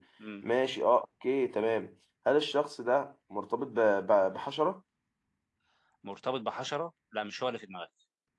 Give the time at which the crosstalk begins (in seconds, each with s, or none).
none